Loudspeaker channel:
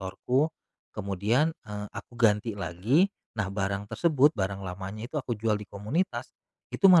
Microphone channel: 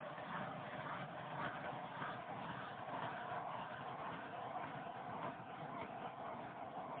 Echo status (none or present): none